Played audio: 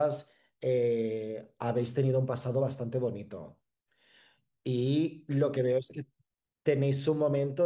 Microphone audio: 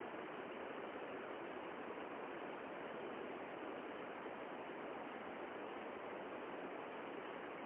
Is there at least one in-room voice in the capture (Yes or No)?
No